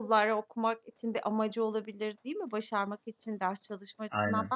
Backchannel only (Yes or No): Yes